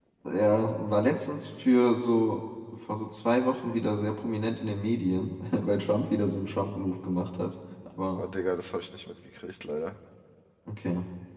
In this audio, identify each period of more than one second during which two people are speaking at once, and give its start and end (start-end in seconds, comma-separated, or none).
none